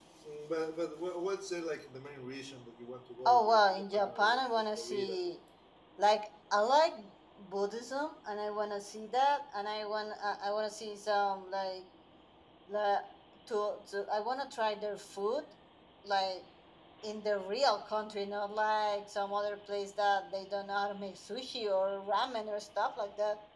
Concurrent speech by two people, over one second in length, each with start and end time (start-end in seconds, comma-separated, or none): 3.2-5.3